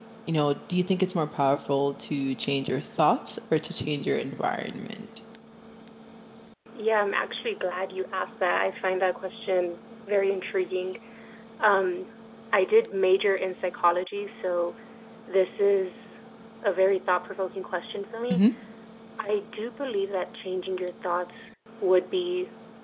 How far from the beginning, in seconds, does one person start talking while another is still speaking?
none

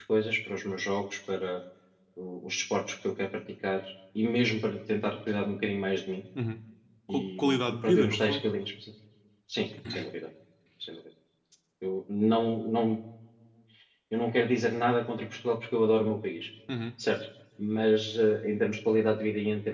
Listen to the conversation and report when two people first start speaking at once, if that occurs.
7.1 s

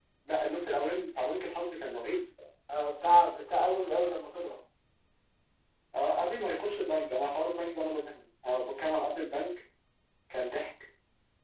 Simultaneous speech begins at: none

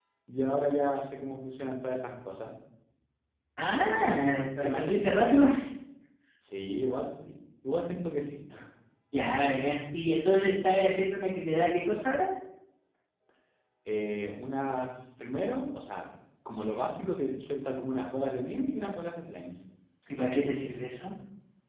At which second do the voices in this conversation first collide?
3.7 s

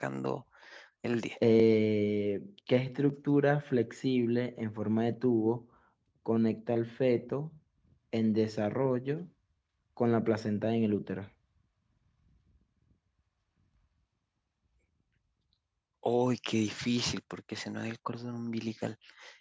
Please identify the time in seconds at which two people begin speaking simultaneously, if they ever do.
none

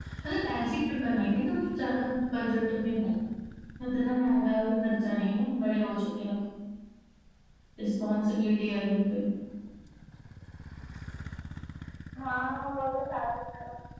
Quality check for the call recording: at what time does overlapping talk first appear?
none

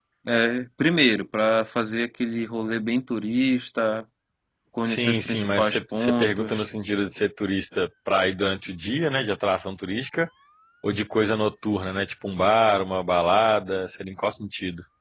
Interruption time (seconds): 4.9 s

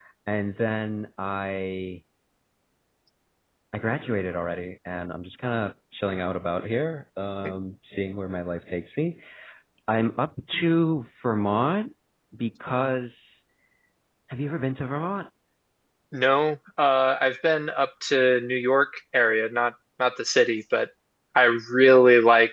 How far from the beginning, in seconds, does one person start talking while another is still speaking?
none

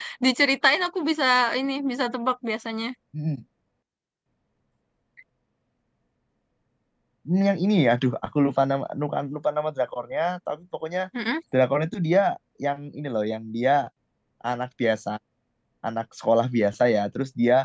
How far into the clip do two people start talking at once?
none

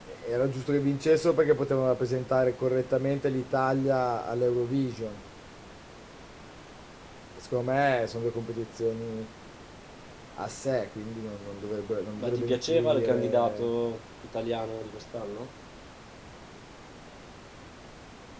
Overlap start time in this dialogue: 12.2 s

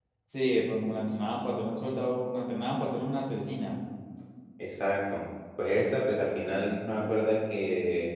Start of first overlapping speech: none

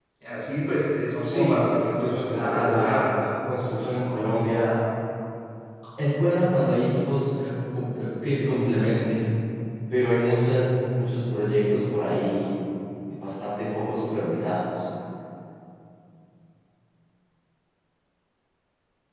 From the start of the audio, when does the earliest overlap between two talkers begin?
1.2 s

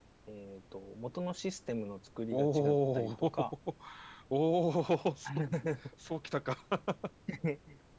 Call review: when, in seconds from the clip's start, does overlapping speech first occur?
2.3 s

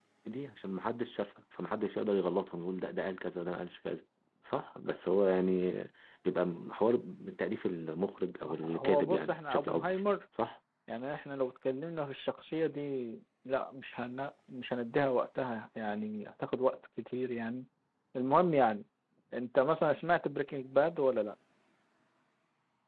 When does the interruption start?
8.4 s

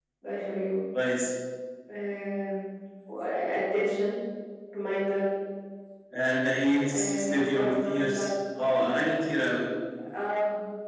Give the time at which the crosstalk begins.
6.9 s

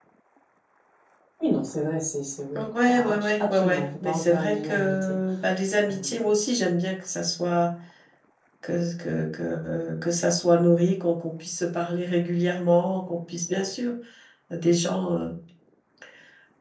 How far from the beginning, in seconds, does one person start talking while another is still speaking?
2.5 s

